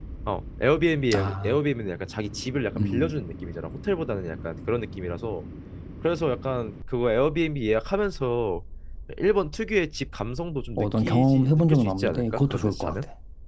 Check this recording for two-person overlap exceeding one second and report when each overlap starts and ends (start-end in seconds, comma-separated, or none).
10.8-13.0